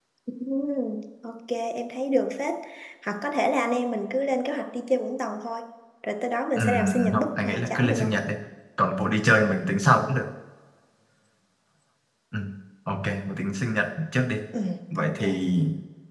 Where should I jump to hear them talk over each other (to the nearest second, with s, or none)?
7 s